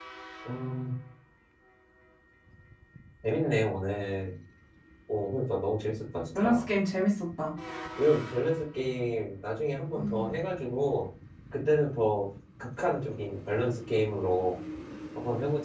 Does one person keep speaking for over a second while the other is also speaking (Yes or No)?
No